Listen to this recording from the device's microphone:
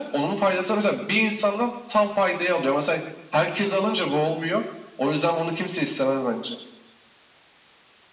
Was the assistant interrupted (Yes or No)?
No